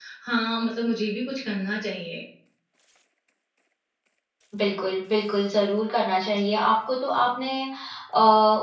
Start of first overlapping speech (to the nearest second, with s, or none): none